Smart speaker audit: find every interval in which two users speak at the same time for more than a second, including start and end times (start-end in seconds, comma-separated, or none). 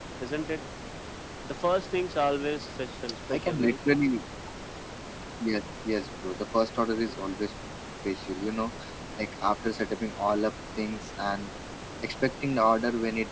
none